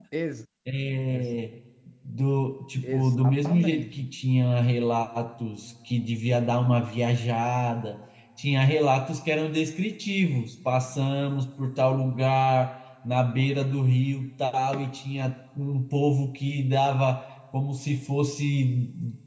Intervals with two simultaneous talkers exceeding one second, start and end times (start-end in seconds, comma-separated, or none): 2.8-4.1